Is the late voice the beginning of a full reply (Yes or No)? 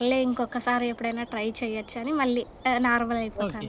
Yes